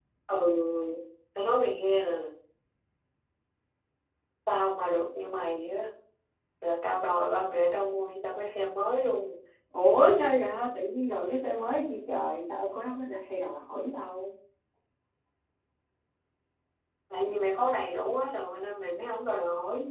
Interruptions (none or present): none